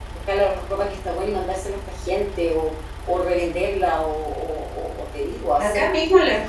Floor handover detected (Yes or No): Yes